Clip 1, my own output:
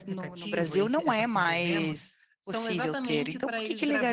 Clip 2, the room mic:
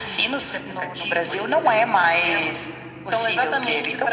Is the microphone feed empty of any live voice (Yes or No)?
Yes